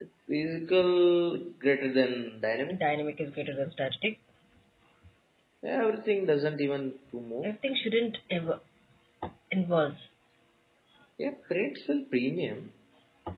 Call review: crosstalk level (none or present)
none